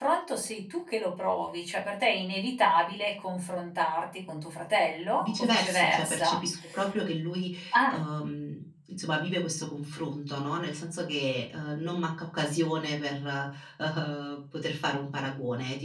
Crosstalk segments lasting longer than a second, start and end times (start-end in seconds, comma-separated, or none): 5.2-6.4